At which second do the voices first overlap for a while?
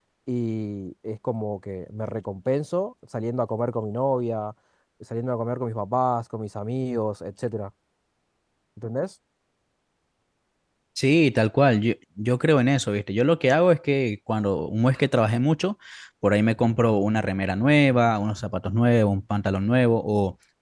none

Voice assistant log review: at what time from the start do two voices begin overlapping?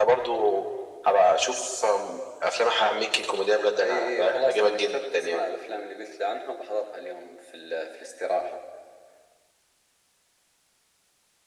3.8 s

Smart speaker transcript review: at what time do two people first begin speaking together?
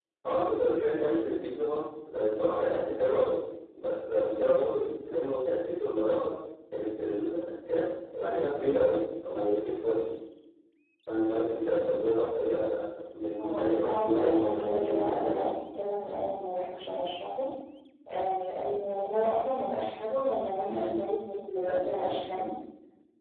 13.4 s

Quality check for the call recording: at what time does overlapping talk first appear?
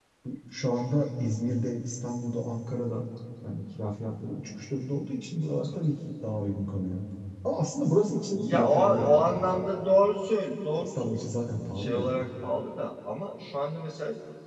8.3 s

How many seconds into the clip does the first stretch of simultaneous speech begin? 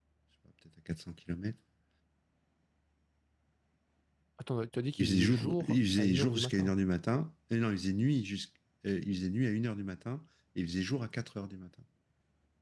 5.0 s

